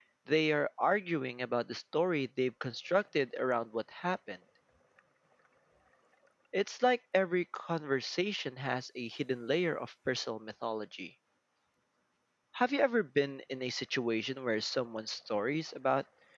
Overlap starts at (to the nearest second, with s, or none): none